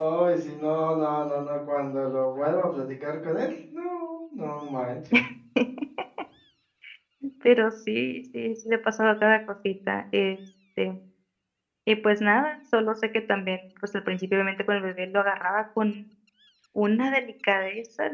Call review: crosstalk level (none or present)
none